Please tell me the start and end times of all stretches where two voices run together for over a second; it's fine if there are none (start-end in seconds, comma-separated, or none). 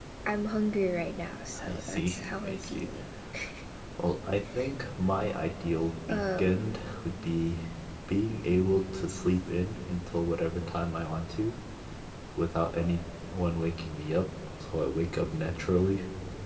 1.6-2.9